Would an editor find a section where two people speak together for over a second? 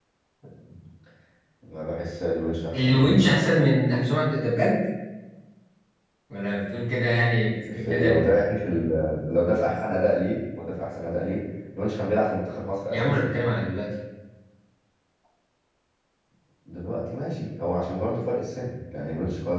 No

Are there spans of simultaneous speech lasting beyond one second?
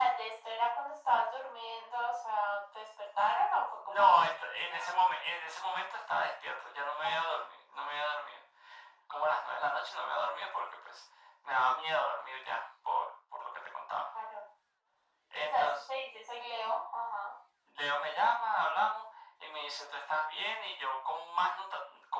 Yes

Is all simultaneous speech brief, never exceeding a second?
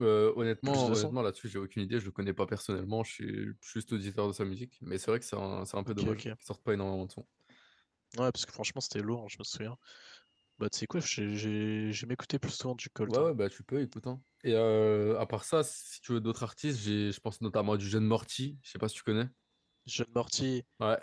Yes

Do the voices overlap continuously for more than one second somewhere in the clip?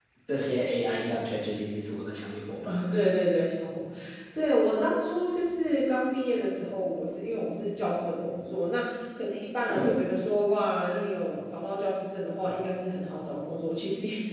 No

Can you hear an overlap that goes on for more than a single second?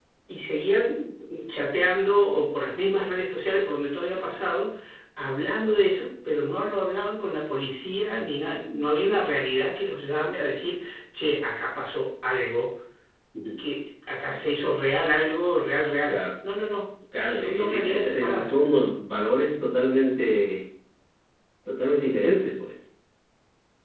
Yes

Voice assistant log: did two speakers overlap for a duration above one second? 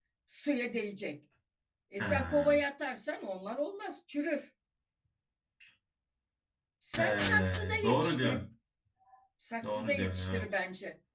Yes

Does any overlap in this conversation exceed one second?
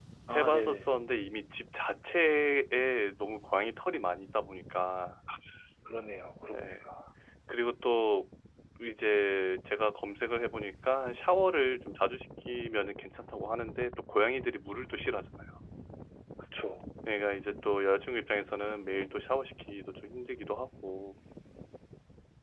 No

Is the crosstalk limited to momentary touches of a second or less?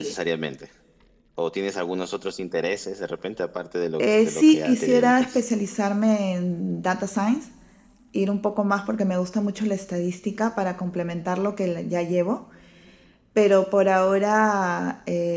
No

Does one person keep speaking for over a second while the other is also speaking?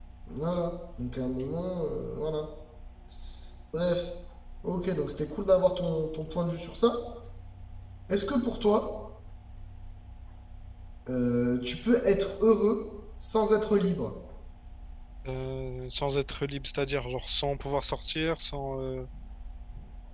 No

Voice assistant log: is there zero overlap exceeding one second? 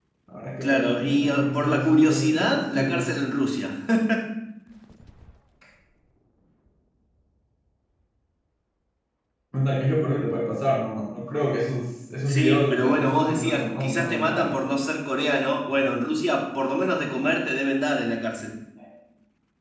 No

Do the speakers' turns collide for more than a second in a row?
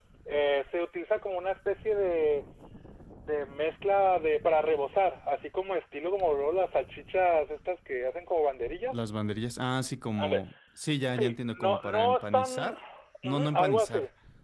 Yes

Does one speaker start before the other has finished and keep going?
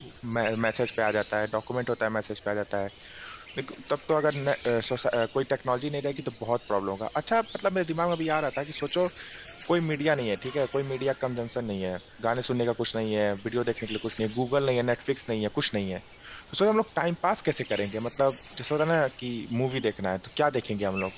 No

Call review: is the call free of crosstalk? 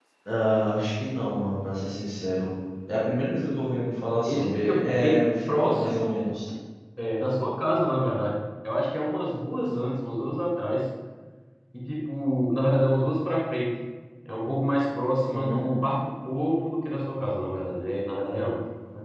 No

